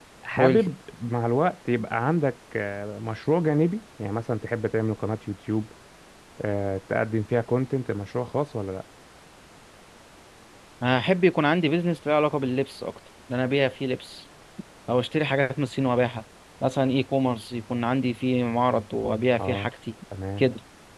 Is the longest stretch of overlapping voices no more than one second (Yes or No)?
Yes